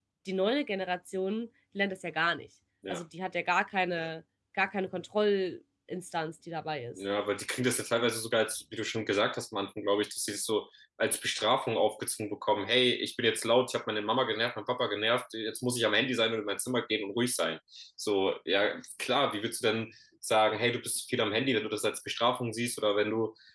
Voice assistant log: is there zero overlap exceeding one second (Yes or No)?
Yes